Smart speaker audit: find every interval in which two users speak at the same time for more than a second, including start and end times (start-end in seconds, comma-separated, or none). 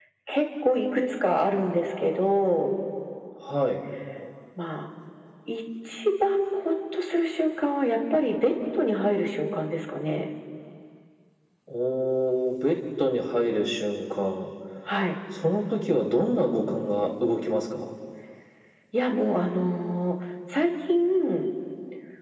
none